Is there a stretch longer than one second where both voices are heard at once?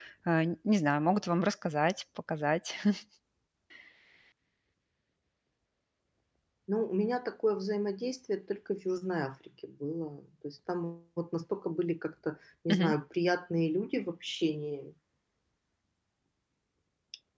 No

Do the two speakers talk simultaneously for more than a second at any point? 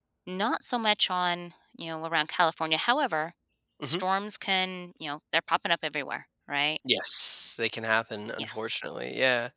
No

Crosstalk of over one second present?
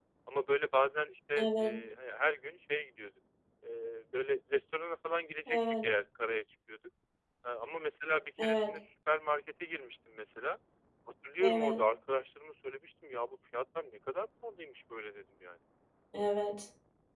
No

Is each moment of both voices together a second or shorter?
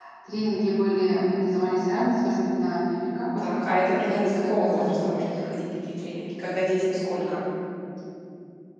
No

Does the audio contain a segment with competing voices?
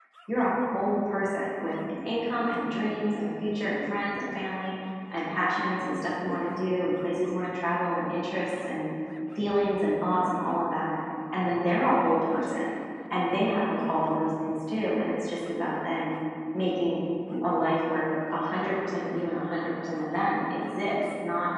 No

